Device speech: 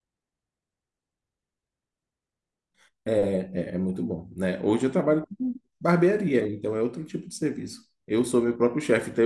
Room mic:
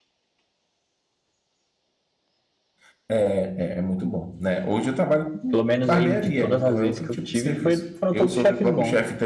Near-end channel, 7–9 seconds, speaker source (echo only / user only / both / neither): both